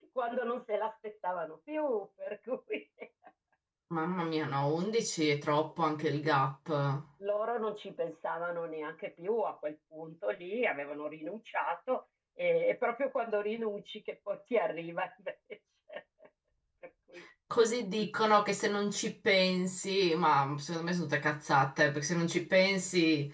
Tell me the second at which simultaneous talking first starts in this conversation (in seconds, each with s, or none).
none